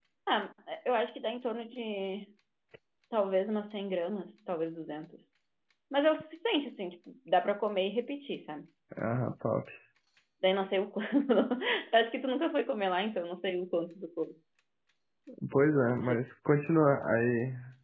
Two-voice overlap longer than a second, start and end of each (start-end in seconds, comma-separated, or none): none